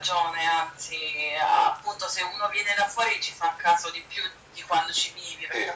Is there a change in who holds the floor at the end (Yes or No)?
No